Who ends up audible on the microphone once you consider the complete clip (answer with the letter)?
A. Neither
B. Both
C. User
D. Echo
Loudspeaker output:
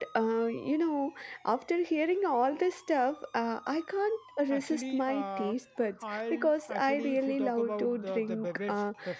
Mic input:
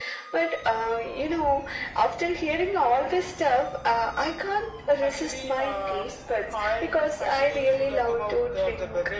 D